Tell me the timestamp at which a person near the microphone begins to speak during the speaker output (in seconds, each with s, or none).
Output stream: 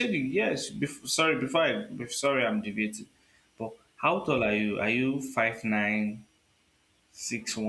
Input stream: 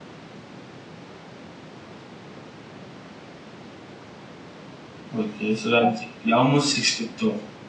5.2 s